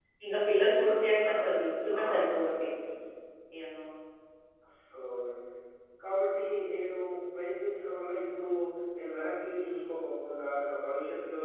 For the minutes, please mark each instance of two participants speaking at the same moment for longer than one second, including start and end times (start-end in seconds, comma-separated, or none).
0.6-2.7